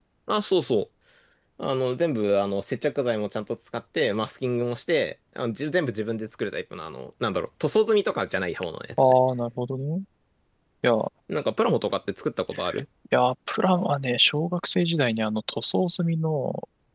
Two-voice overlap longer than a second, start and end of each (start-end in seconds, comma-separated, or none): none